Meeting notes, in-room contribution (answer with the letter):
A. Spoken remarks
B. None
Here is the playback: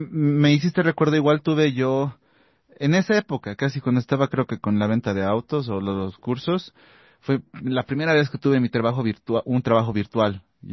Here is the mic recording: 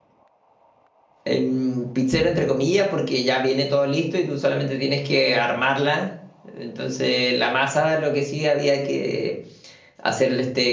A